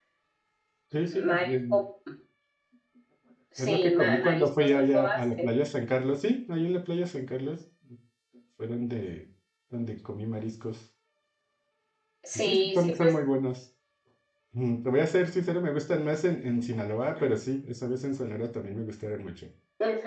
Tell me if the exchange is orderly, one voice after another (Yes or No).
No